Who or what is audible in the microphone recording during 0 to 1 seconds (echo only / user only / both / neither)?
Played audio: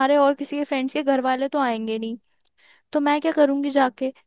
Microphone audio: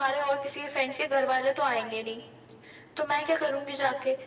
echo only